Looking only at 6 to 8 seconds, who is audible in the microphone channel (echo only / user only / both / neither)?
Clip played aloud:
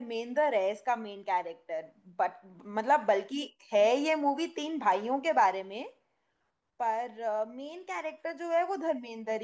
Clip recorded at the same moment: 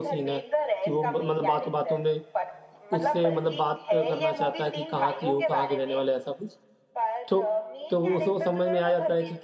both